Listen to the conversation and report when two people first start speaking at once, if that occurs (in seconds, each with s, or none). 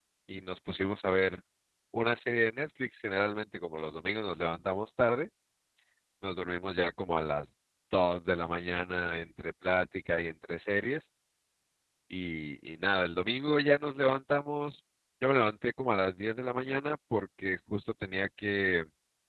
none